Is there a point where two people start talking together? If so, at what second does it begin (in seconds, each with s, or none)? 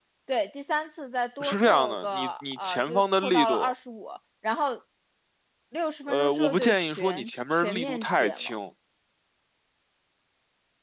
1.4 s